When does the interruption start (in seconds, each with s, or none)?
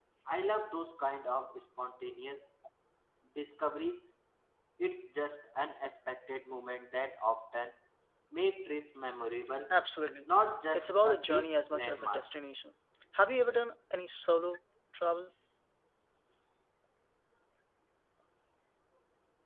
10.7 s